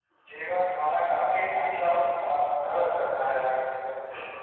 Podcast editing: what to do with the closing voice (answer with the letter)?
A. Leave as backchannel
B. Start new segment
B